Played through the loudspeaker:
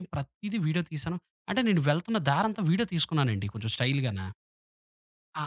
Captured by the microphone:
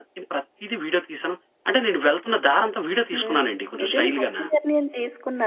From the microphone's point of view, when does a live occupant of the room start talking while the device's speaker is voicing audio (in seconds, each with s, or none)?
3.1 s